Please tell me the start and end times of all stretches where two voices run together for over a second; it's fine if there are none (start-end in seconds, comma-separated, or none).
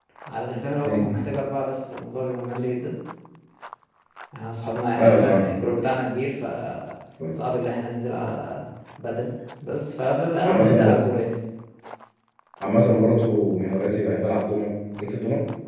none